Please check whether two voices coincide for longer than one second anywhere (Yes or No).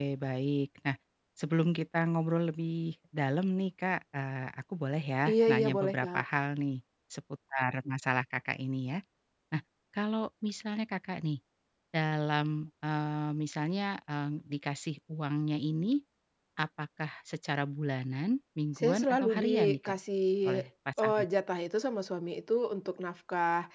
Yes